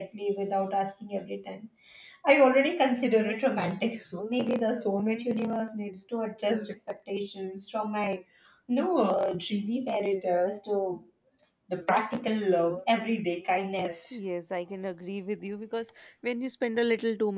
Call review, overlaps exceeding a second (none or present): none